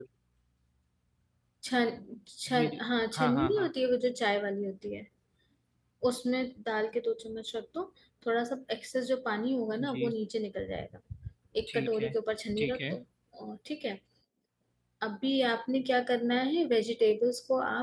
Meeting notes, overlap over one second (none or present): none